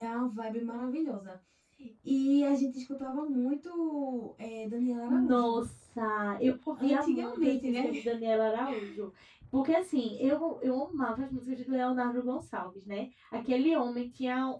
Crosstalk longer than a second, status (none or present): present